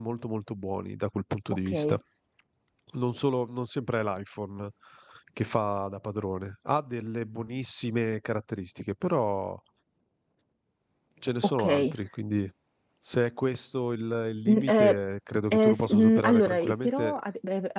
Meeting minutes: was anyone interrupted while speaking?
Yes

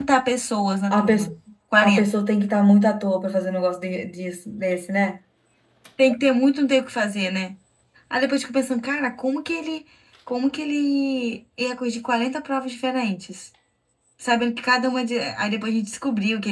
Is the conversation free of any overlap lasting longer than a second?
Yes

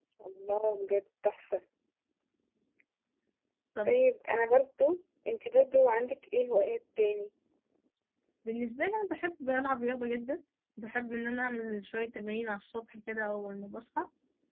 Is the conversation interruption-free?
Yes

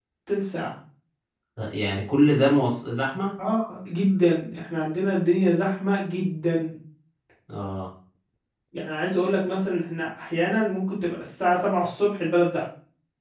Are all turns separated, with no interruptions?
Yes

